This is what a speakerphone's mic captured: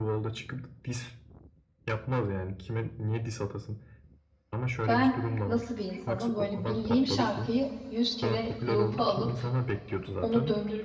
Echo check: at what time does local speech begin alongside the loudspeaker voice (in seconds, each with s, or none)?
4.9 s